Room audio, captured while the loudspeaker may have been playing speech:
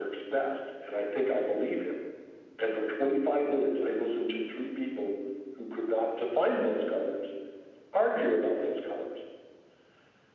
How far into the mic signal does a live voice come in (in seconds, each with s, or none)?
none